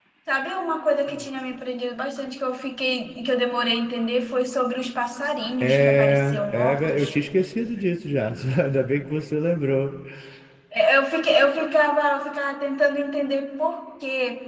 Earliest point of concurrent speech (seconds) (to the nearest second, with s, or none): 6 s